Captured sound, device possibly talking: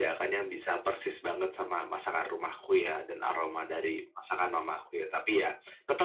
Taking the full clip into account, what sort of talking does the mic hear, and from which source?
echo only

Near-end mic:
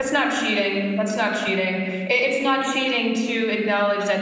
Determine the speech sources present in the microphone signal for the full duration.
user only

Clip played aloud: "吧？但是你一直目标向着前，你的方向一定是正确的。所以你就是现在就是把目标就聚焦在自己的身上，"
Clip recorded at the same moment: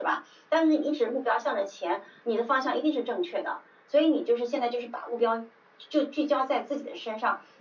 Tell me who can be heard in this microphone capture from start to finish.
echo only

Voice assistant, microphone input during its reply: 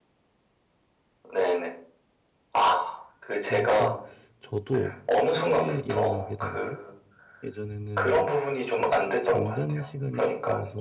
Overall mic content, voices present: both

